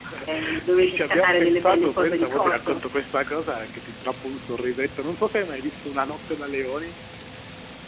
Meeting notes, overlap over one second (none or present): present